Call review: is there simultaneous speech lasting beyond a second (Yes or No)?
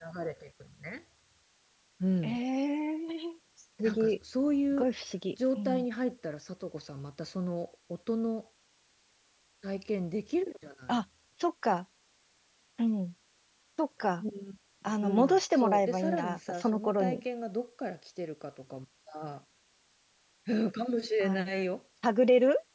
Yes